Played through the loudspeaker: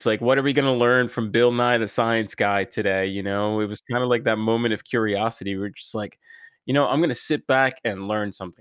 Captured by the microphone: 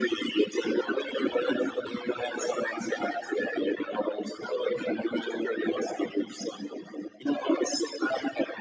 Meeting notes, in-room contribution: none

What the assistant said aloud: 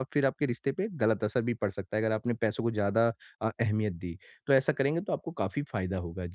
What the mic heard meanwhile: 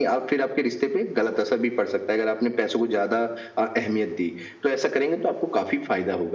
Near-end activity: none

